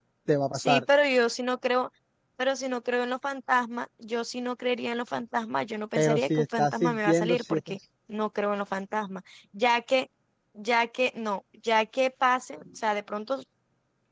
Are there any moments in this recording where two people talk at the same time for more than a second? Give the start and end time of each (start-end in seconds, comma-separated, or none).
6.0-7.8